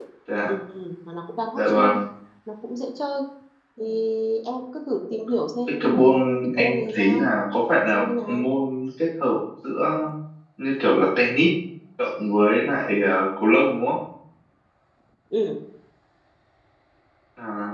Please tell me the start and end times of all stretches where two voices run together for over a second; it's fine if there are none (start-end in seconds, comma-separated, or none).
5.7-7.2